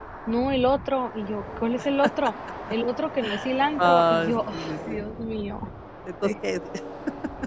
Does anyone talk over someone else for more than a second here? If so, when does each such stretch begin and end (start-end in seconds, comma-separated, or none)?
3.8-5.0